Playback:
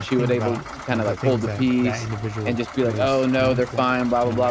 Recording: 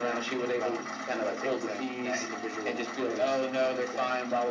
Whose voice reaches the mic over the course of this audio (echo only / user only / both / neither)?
echo only